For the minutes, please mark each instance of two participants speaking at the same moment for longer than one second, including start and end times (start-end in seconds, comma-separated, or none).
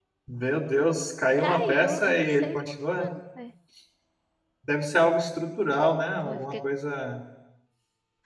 1.4-2.6